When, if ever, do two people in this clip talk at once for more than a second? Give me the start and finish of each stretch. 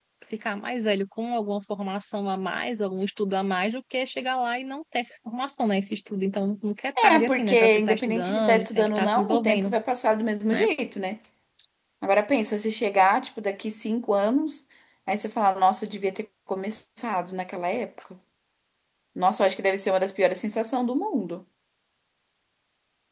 7.0-9.7

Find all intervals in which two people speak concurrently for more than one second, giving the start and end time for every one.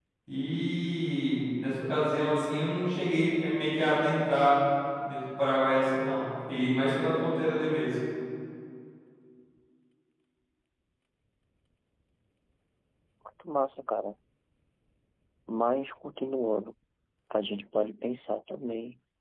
none

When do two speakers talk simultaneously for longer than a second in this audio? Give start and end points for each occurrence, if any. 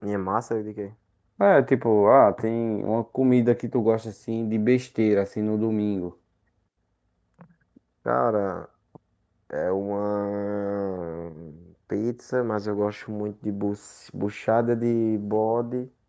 none

